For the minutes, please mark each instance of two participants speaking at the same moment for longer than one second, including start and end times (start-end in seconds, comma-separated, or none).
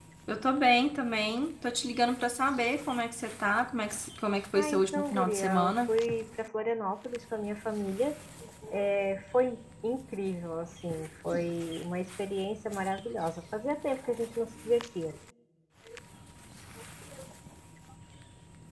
4.5-5.9